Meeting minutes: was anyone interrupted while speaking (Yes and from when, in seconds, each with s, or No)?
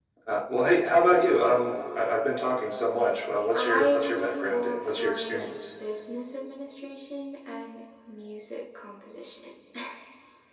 Yes, from 3.5 s